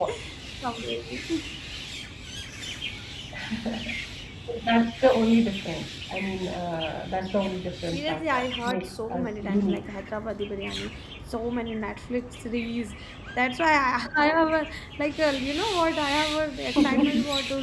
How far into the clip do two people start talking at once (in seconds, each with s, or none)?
7.9 s